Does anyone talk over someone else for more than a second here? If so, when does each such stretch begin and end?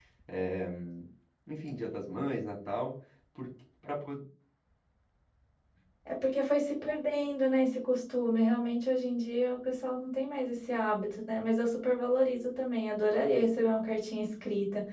none

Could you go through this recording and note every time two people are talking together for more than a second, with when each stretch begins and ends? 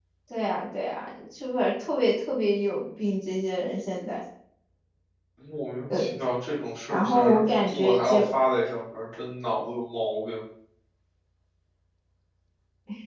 6.9-8.2

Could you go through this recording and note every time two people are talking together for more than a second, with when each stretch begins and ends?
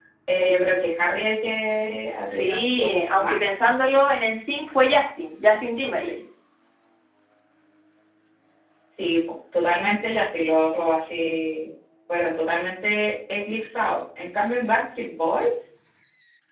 2.2-3.5

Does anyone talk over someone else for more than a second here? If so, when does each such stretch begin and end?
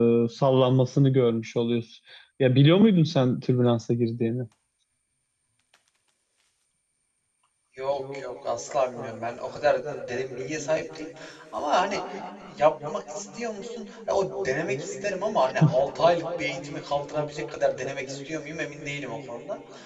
none

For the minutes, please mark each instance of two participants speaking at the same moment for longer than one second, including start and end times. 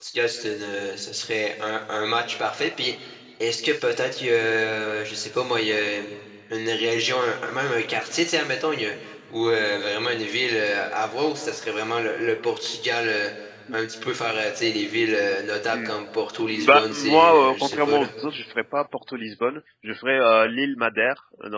16.5-18.1

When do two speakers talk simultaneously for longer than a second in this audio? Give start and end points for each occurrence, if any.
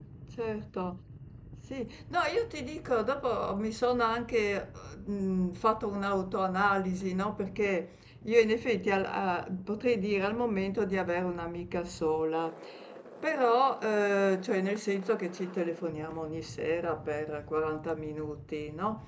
none

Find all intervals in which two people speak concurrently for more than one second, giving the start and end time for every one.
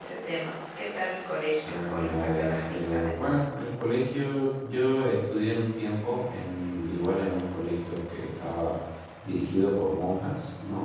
1.7-3.1

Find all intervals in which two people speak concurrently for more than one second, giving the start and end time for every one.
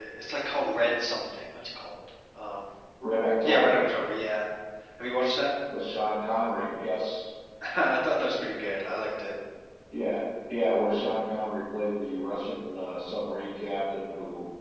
none

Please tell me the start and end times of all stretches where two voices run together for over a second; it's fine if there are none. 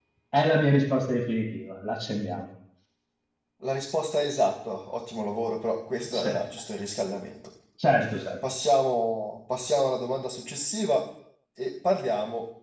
none

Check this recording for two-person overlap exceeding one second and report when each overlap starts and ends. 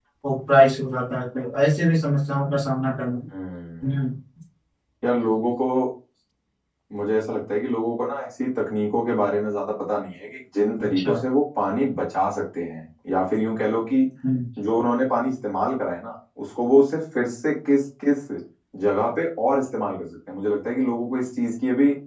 none

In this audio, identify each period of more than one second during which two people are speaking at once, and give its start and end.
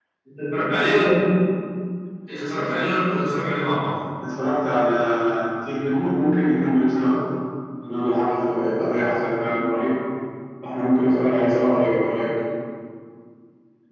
none

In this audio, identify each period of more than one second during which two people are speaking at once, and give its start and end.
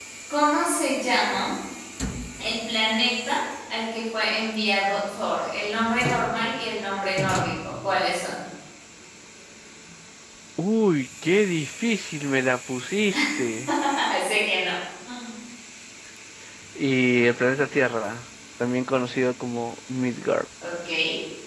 none

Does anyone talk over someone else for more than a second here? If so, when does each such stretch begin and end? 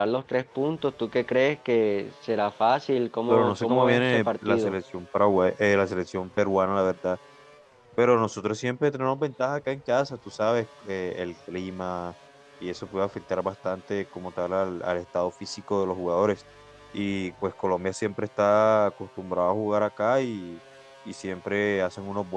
3.3-4.8

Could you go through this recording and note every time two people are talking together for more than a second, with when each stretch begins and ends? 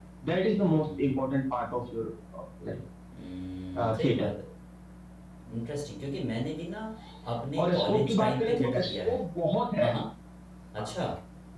7.6-9.2

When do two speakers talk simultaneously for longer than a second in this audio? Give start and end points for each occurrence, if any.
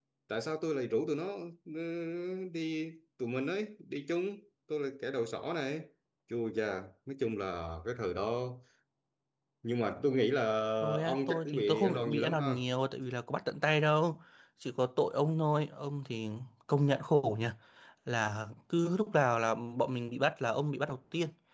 11.0-12.6

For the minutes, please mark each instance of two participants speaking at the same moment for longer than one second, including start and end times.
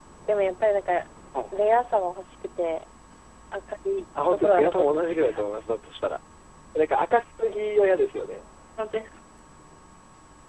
4.3-5.5

